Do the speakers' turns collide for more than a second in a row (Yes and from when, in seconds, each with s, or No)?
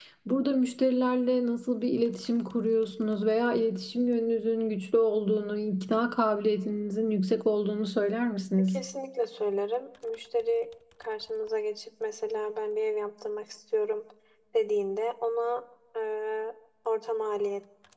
No